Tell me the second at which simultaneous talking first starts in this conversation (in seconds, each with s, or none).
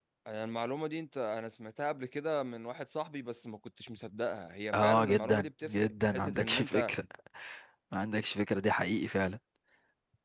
4.7 s